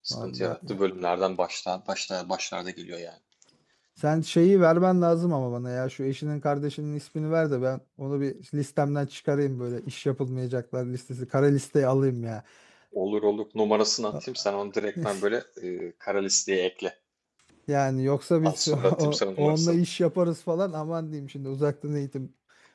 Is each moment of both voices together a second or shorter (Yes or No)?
No